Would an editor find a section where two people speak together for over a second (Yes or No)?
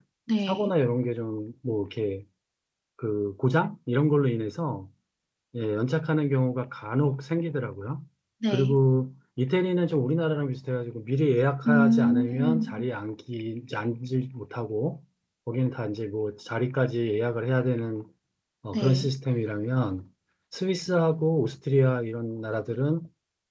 Yes